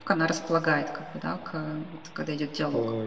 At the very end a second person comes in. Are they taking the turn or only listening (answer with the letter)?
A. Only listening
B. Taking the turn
B